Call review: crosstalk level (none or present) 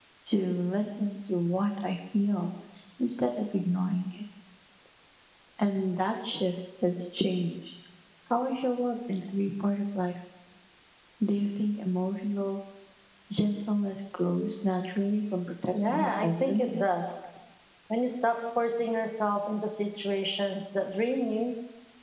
present